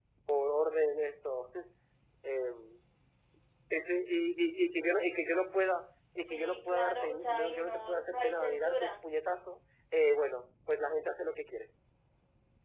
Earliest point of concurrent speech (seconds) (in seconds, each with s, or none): 6.3 s